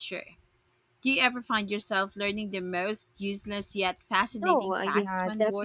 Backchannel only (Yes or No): No